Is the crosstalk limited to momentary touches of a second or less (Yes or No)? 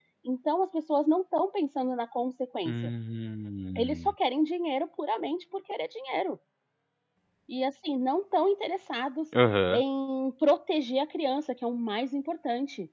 Yes